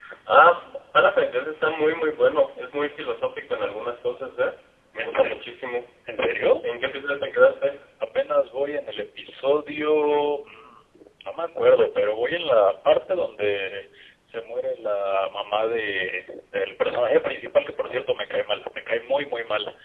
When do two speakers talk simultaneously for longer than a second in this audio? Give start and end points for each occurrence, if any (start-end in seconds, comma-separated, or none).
none